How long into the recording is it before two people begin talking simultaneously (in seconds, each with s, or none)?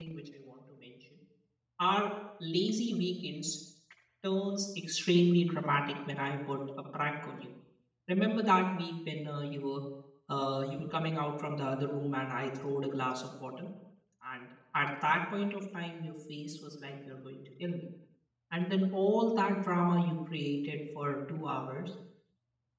none